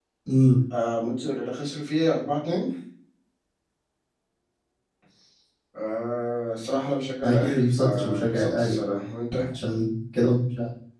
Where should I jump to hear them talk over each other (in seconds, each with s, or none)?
7.2 s